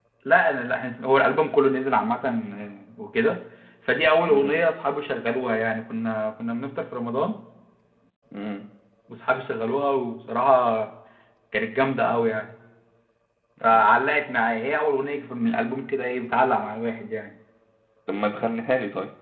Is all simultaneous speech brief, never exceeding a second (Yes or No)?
Yes